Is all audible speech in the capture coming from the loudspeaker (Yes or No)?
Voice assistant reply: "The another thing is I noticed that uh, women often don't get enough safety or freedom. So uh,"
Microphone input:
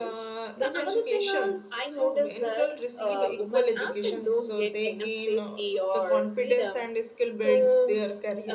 No